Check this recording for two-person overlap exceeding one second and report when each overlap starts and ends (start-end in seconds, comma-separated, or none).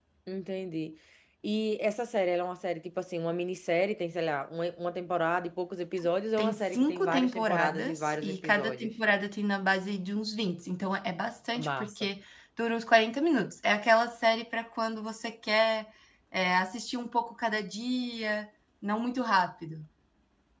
6.4-8.9